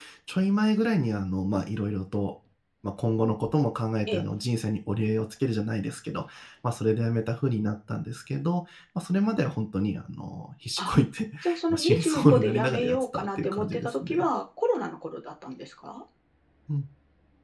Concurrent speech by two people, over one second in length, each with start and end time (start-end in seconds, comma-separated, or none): 11.7-14.2